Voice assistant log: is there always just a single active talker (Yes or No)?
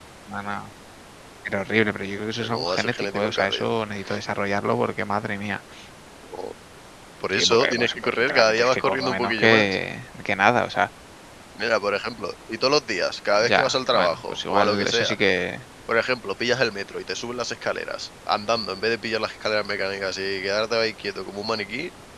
No